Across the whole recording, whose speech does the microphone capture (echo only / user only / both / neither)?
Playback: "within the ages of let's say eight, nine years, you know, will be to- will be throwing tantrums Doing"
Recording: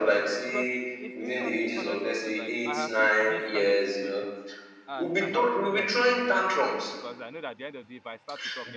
both